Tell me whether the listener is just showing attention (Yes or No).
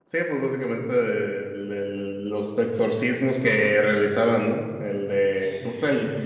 Yes